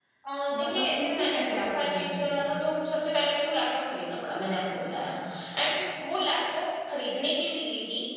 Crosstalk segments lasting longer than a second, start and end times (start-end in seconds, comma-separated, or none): 0.5-2.5